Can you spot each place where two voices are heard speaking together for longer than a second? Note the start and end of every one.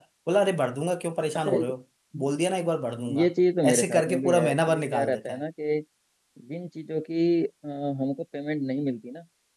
3.7-5.4

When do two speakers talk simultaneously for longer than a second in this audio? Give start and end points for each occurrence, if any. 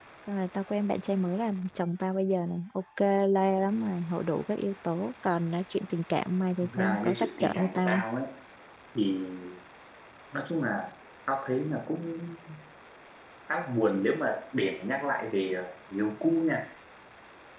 6.6-8.0

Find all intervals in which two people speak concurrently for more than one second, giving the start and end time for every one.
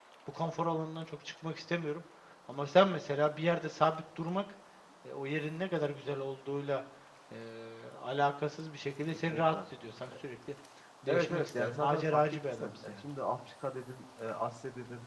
11.1-13.0

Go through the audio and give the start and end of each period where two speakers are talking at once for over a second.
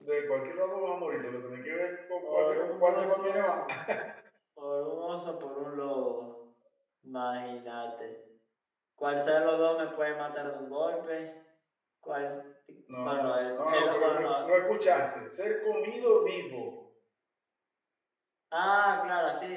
2.2-3.6, 13.0-14.3

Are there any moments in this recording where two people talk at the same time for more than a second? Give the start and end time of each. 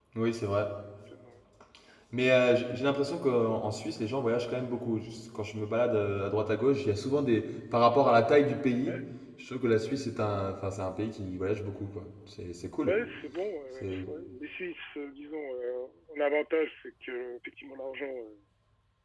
none

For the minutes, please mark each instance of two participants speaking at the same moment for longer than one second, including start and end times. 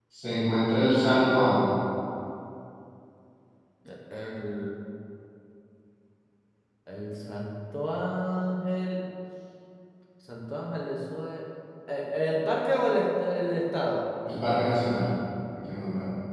none

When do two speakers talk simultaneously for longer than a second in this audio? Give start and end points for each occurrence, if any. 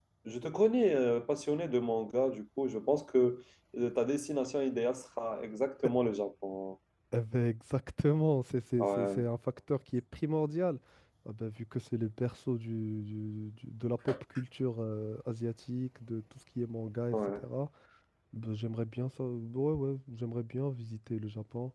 none

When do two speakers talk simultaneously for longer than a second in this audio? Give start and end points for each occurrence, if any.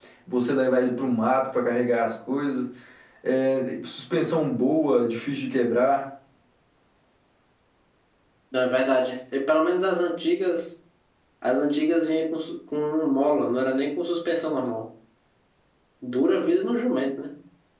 none

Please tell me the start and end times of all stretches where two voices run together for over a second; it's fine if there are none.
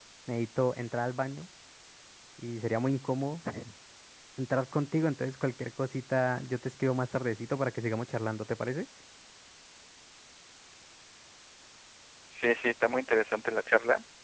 none

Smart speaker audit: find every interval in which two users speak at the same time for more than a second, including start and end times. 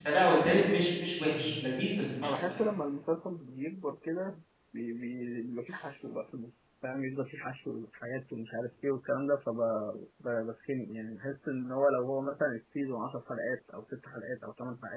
none

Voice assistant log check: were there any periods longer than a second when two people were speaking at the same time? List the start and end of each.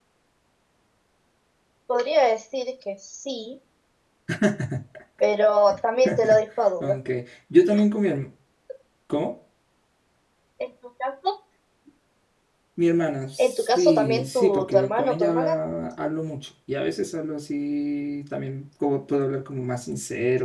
13.4-15.6

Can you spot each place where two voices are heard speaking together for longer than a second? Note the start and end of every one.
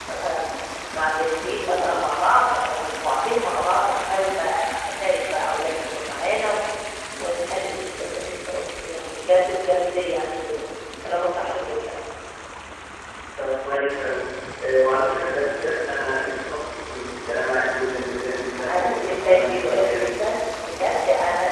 18.5-20.2

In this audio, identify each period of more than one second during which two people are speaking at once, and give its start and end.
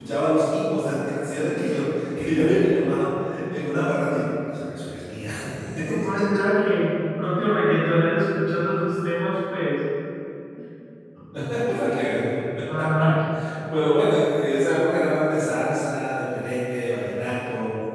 none

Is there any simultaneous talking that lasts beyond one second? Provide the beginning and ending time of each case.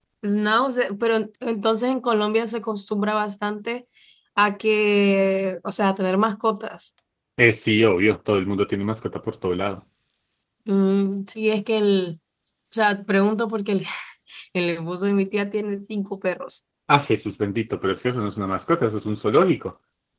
none

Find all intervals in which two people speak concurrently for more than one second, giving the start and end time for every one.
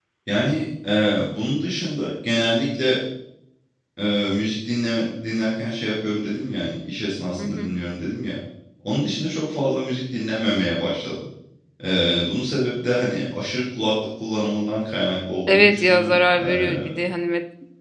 15.5-16.8

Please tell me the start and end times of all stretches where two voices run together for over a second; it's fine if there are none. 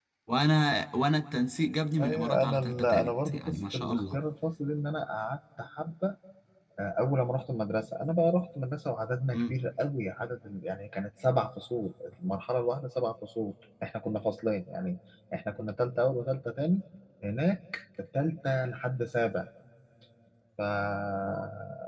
2.0-4.2

